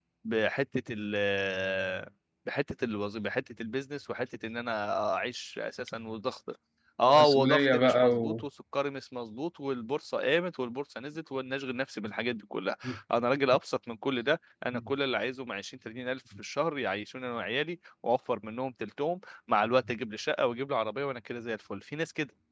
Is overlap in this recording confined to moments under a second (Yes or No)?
No